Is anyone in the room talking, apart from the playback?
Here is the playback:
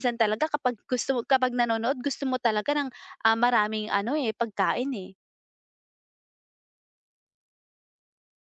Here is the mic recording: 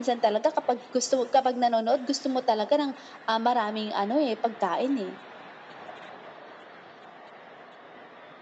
No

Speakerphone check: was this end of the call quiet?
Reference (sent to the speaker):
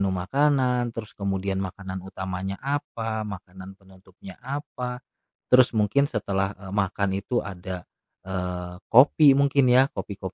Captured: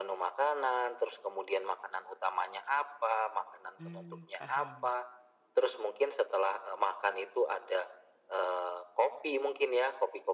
No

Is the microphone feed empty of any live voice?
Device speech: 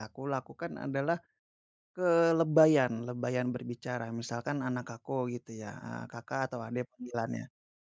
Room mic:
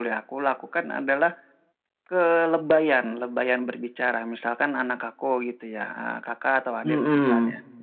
No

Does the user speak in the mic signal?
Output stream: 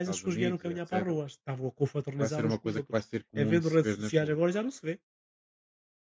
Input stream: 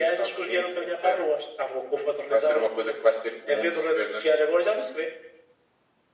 No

